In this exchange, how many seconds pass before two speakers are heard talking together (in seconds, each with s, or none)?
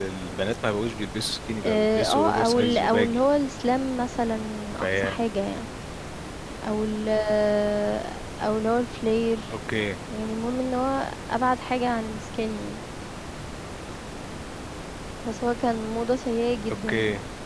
1.6 s